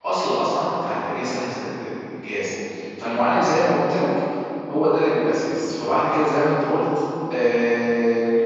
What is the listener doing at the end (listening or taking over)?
taking over